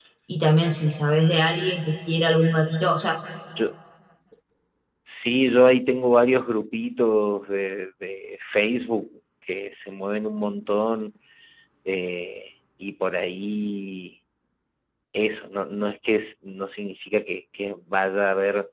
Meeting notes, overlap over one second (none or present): none